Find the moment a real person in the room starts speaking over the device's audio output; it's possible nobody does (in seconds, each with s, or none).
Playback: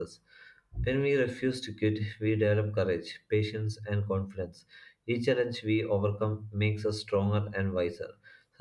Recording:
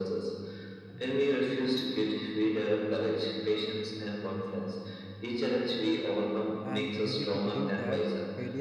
6.6 s